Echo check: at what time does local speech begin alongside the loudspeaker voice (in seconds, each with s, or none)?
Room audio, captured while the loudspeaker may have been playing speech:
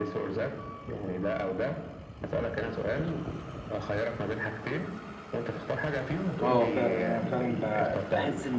6.4 s